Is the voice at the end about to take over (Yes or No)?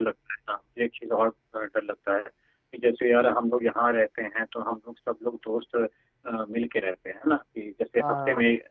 No